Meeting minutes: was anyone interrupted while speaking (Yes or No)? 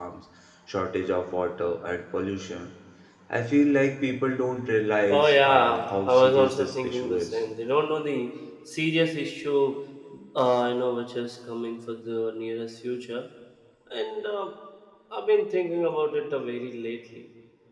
Yes